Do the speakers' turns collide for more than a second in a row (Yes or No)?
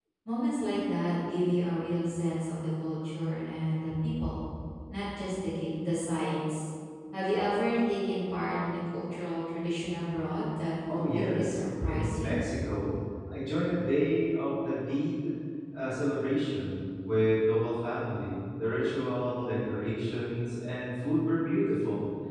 Yes